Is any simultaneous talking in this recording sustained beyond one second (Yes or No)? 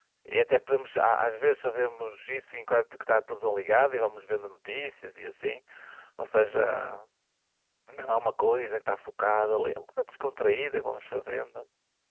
No